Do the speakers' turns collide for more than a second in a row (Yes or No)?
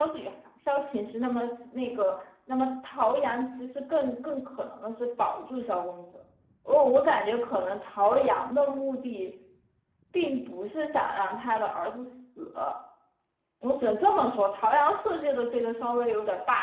No